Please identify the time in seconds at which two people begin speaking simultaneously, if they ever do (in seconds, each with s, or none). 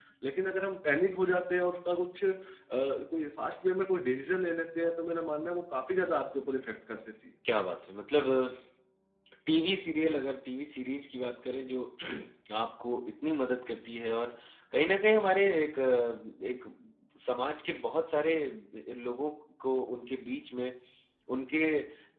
none